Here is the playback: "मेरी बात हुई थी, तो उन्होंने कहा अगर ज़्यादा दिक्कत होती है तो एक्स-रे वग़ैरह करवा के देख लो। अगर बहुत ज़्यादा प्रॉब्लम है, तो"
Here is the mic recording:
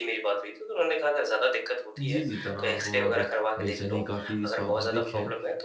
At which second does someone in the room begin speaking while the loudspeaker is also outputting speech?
2.0 s

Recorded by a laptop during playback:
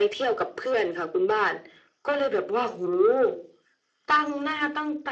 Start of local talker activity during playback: none

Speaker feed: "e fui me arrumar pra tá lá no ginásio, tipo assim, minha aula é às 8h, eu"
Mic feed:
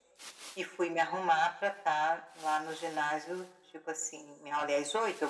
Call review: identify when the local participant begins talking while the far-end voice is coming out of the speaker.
none

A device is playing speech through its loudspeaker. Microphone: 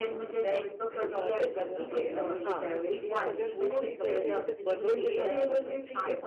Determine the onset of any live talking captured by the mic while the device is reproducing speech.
1.2 s

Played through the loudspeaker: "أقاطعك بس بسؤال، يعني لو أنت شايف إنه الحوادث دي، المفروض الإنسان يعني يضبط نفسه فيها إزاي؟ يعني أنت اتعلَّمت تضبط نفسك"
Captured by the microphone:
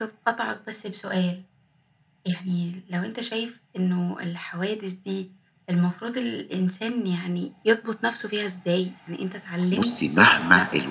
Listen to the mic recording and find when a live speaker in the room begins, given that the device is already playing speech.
9.7 s

